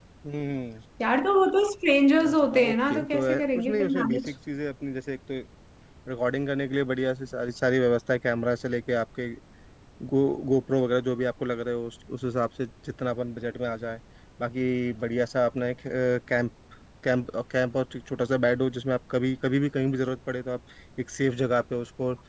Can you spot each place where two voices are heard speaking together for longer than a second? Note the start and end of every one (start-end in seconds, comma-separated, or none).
2.2-4.3